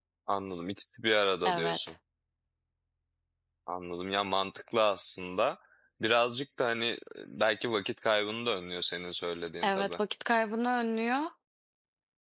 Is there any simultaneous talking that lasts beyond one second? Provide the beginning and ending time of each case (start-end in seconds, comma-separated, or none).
none